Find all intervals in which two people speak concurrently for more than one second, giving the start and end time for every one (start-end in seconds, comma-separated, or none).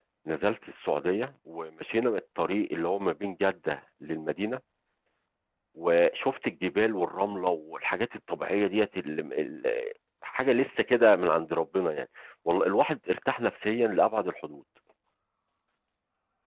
none